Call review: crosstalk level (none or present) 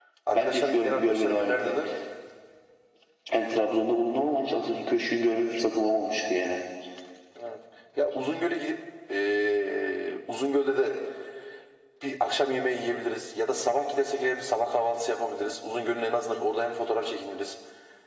present